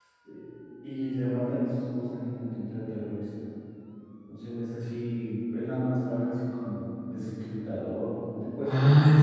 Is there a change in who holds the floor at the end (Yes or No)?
Yes